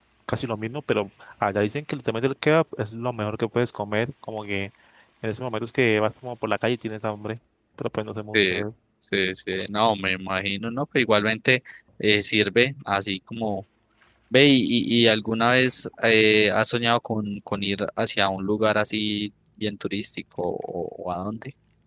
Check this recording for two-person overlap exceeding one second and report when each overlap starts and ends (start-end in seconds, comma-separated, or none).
none